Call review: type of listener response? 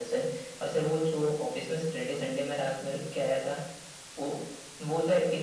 listening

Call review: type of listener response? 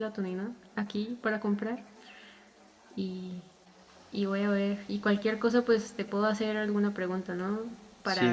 taking over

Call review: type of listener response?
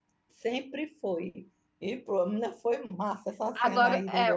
taking over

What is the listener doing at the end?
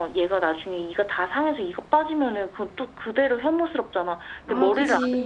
listening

